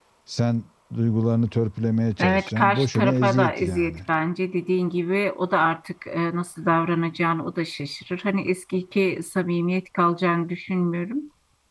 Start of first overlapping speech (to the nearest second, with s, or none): 2 s